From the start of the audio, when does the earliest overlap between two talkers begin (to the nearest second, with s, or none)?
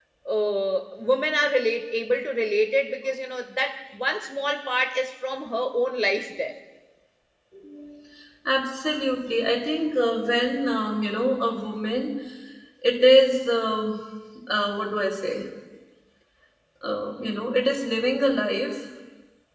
none